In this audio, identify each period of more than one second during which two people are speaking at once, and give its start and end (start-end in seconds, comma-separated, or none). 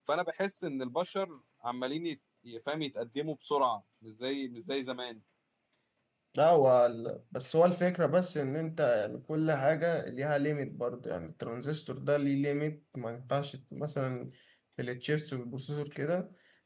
none